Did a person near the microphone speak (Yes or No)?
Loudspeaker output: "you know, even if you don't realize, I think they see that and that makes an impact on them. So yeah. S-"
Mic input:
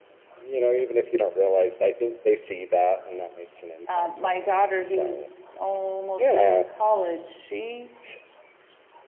Yes